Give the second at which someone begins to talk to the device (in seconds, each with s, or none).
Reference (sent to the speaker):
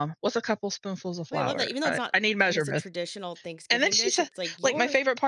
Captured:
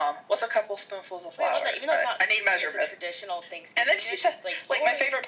none